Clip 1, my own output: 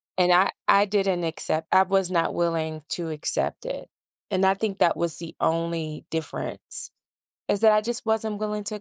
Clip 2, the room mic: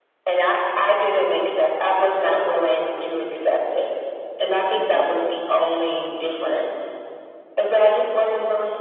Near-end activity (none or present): present